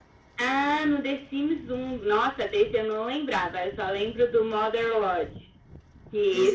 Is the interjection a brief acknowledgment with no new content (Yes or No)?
Yes